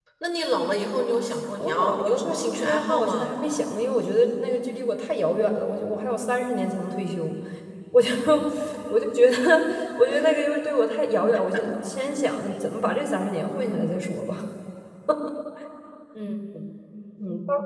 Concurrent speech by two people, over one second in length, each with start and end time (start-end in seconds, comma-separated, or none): 1.6-3.3